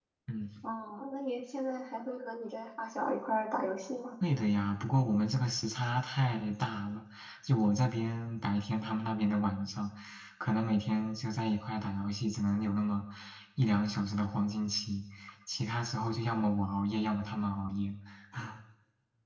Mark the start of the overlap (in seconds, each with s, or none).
none